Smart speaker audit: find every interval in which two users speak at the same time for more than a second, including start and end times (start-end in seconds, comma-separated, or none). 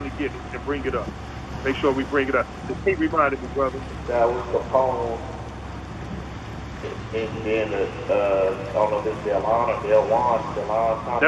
none